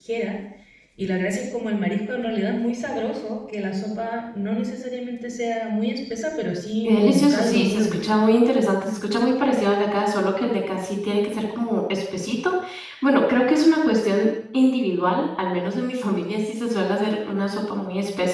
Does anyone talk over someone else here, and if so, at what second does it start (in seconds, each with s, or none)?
6.8 s